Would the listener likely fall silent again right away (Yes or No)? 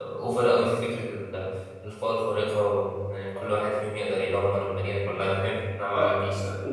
No